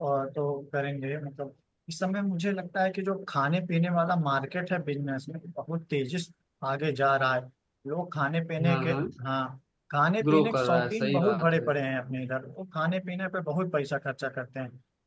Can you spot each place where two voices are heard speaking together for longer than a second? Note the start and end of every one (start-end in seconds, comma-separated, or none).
10.2-11.7